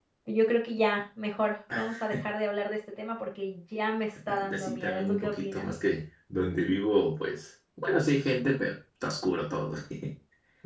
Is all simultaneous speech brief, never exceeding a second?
No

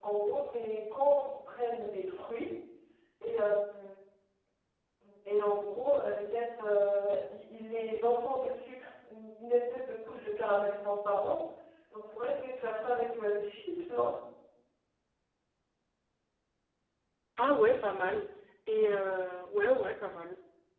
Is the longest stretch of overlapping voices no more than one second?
Yes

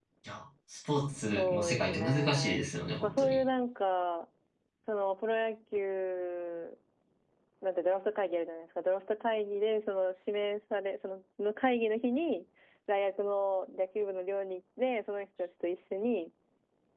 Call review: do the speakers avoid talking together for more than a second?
No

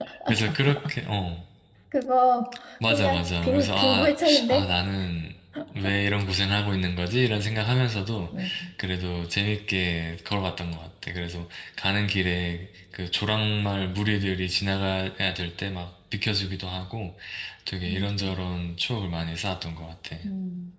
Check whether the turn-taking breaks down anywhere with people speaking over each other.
Yes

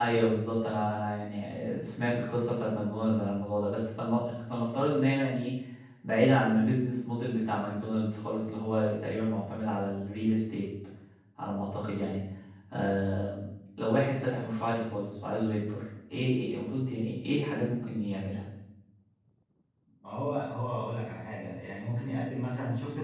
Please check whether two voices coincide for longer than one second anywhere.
No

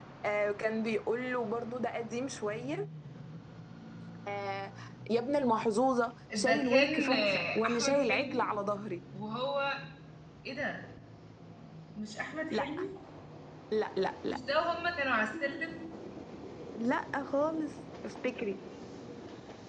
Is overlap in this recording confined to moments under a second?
No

